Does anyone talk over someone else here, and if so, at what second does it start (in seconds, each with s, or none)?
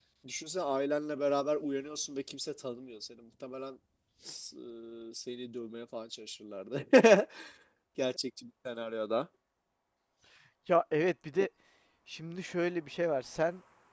none